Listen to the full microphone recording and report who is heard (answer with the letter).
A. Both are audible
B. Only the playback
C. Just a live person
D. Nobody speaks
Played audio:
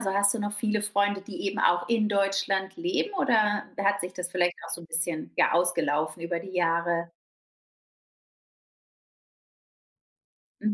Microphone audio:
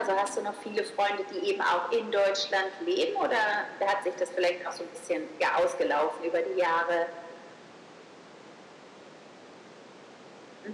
B